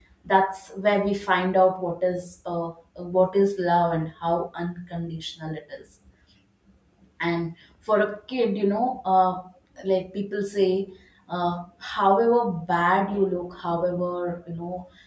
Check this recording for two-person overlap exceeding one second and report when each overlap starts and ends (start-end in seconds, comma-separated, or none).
none